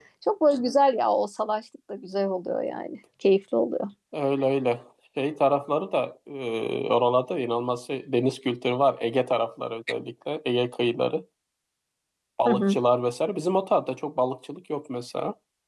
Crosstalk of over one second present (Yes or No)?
No